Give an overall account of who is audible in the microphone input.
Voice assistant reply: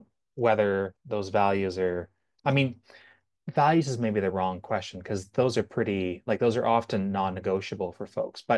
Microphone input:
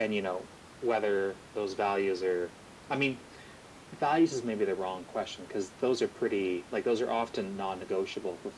echo only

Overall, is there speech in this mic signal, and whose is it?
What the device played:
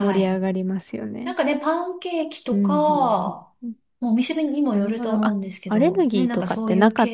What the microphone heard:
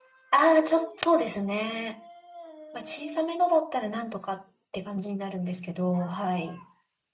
user only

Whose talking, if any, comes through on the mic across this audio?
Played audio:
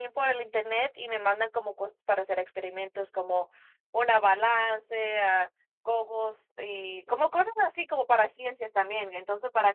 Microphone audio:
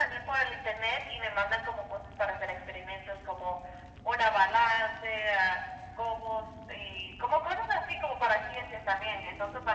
echo only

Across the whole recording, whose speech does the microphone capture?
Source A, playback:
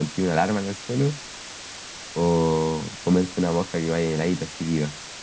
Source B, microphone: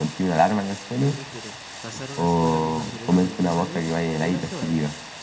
both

